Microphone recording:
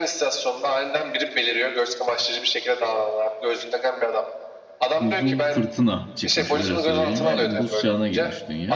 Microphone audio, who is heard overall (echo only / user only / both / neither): both